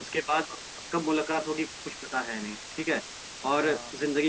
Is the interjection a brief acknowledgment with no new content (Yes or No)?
Yes